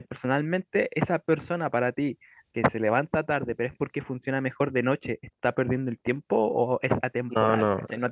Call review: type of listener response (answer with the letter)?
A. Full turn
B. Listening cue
B